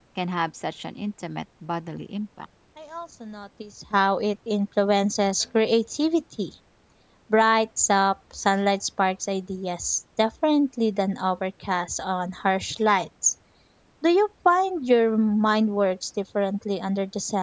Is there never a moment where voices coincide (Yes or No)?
Yes